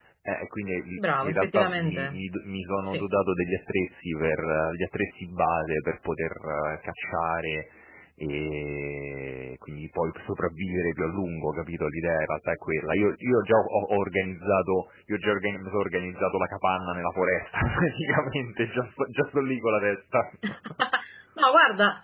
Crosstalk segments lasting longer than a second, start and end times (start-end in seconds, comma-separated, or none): 1.0-2.2